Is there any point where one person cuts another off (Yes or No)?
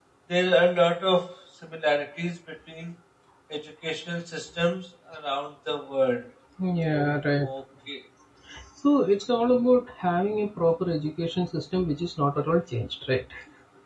No